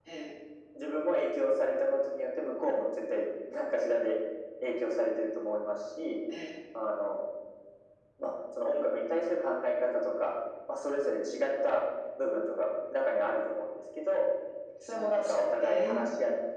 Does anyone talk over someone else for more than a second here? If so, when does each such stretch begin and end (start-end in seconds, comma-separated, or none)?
14.9-16.1